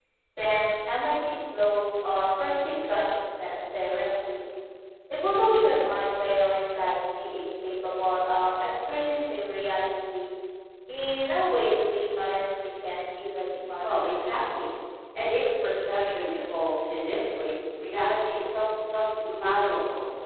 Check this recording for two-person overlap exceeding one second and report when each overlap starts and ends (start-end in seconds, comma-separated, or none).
none